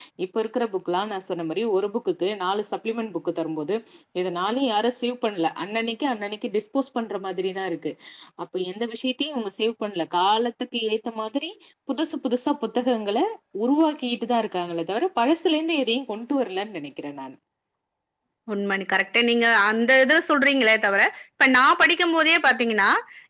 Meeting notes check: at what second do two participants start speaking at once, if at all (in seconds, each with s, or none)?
none